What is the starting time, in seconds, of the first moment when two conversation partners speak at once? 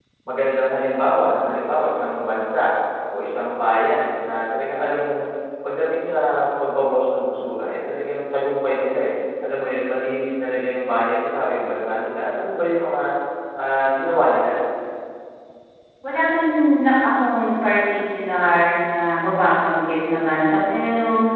none

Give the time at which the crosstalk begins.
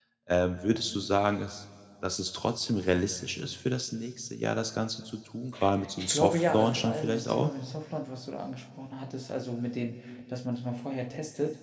6.0 s

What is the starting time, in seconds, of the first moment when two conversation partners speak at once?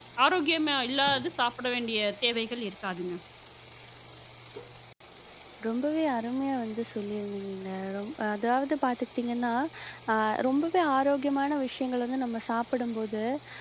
none

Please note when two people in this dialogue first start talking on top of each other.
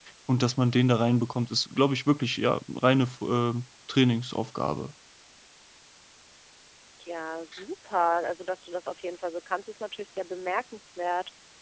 none

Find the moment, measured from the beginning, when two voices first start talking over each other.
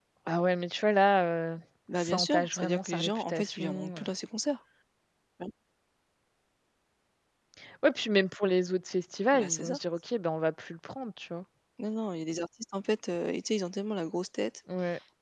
1.9 s

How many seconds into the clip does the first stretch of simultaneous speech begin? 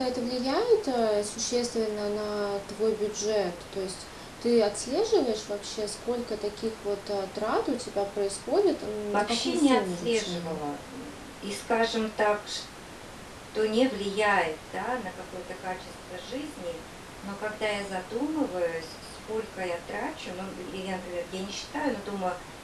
9.1 s

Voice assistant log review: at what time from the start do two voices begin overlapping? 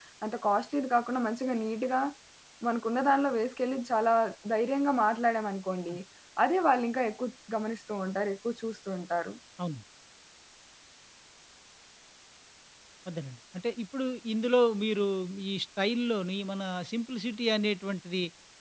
none

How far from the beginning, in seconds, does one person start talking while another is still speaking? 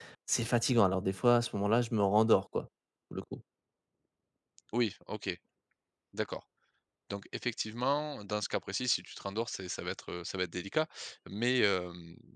none

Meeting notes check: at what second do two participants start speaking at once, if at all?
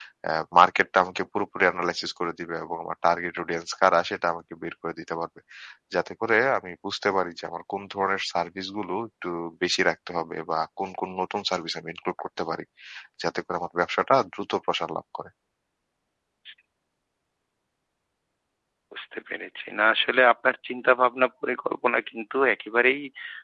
none

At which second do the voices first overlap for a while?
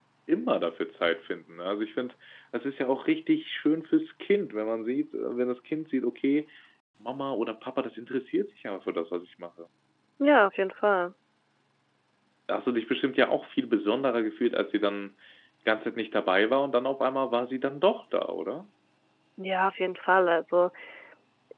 none

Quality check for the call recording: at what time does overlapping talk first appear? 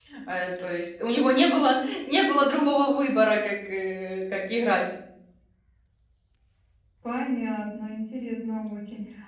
none

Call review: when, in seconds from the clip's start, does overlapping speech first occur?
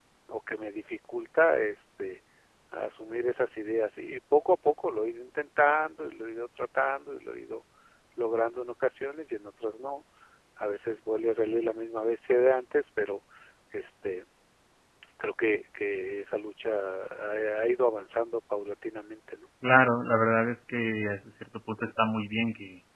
none

